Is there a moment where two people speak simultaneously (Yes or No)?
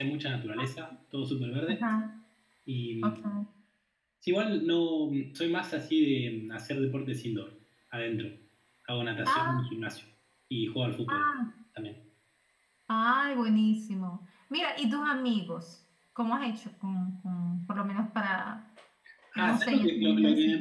Yes